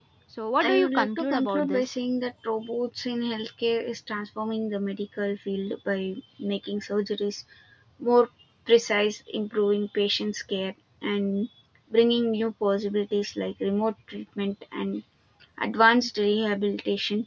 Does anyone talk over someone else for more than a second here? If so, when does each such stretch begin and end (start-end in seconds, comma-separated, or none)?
0.6-2.0